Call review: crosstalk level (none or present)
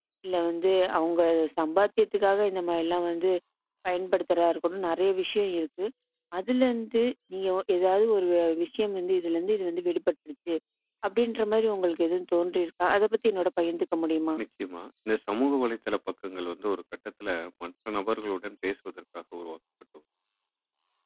none